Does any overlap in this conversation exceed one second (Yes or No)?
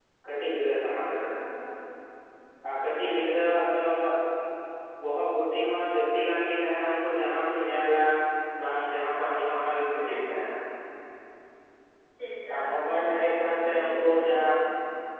Yes